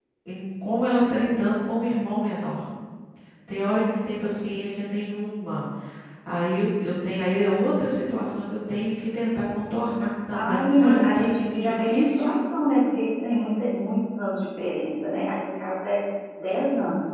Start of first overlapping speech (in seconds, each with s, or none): 10.3 s